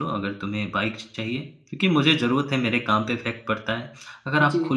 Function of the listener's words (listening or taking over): listening